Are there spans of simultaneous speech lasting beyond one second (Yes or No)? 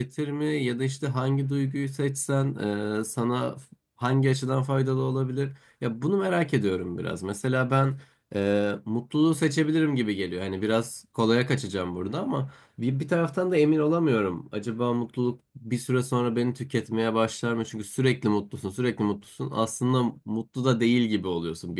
No